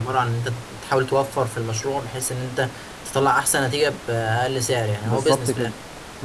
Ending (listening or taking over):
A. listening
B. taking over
B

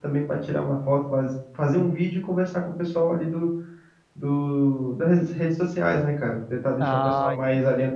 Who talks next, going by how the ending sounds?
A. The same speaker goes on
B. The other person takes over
A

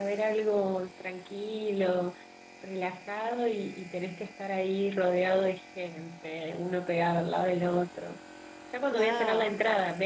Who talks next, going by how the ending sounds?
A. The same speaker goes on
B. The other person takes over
A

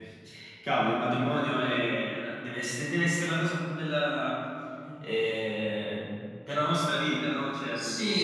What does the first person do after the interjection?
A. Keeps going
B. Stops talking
B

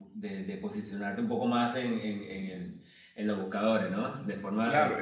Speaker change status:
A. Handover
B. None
A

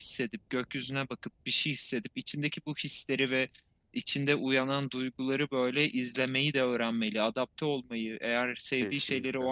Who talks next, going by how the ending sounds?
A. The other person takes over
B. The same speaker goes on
B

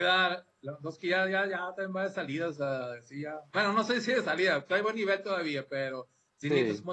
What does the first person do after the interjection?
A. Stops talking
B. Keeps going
B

